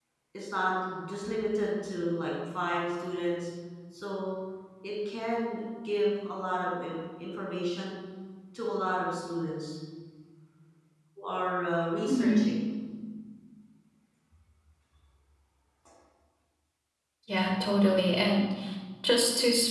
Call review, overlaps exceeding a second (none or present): none